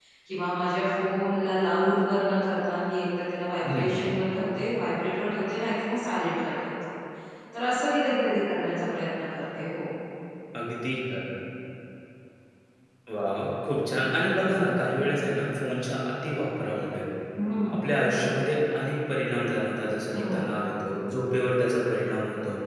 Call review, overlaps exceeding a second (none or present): none